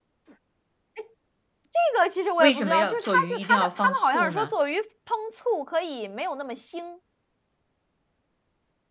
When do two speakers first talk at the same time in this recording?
2.4 s

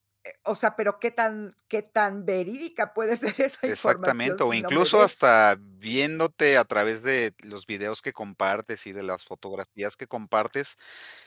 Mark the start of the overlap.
3.7 s

